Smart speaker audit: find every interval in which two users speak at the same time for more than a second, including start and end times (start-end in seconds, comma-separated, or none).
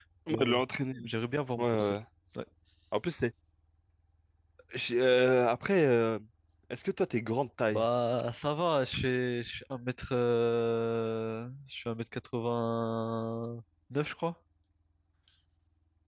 none